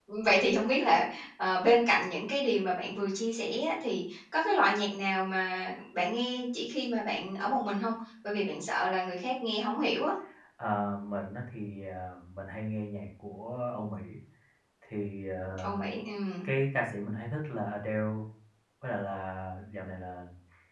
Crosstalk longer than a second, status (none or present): none